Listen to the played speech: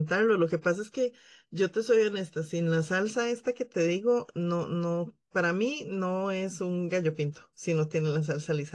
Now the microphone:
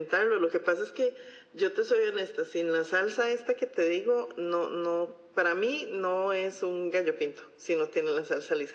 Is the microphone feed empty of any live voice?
Yes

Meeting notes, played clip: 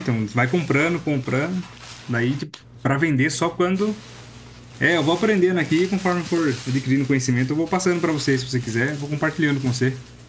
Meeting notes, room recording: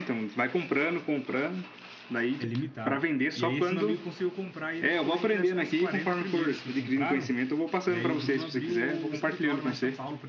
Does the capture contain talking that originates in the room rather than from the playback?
Yes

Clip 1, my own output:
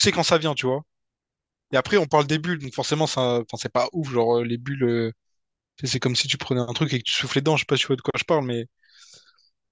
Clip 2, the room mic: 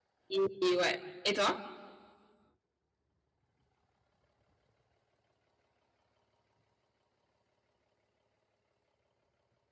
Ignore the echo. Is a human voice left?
Yes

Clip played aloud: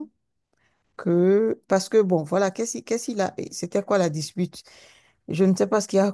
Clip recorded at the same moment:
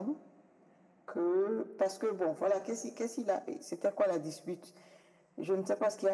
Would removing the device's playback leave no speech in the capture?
Yes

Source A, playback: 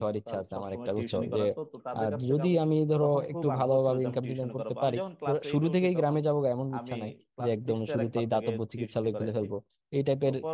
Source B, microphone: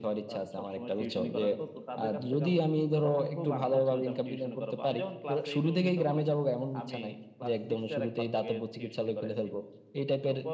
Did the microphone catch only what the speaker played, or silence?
Yes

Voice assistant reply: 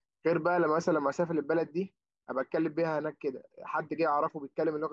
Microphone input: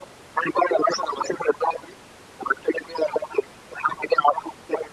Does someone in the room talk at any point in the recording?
No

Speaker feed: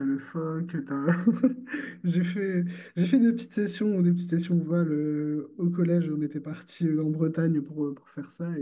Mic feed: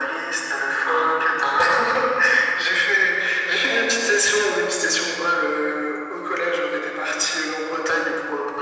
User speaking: No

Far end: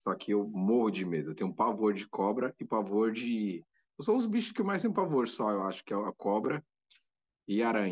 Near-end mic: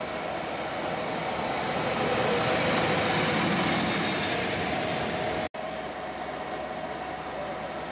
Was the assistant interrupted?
No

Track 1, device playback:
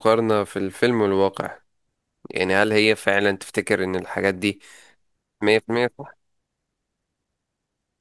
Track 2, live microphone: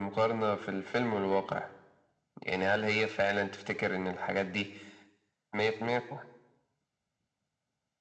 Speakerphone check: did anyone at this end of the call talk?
No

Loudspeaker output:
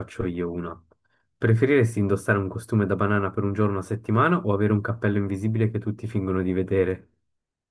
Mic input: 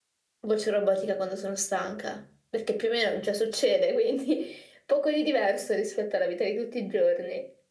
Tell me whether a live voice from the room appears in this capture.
Yes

